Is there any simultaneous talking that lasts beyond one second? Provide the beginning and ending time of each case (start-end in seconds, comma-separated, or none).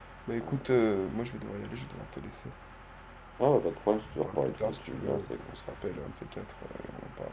3.9-5.6